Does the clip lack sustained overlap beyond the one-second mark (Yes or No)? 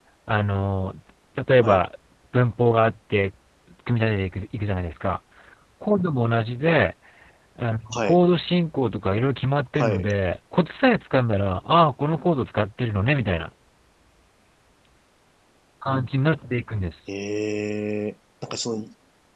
Yes